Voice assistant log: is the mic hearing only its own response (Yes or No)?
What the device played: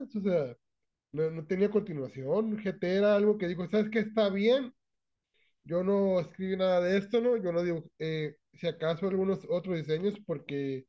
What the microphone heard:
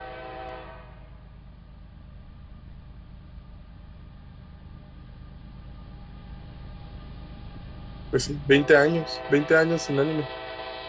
No